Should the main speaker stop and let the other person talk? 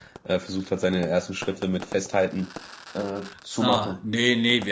Yes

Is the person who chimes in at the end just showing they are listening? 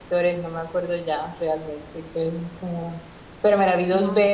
Yes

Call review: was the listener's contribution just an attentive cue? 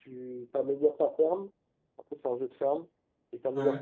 Yes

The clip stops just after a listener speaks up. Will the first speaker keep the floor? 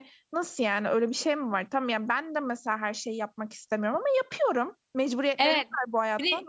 No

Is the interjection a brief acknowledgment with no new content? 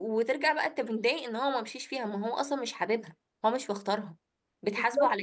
No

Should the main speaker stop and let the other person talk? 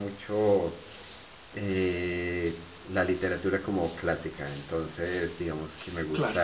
No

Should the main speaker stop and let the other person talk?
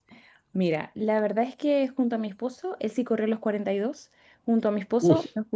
No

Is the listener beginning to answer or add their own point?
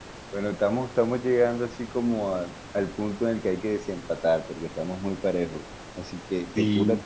No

